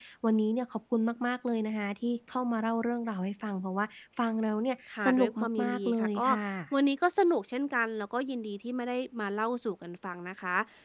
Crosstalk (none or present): present